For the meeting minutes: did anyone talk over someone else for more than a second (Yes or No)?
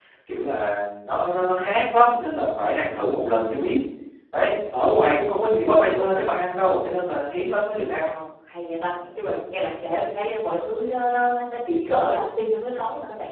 No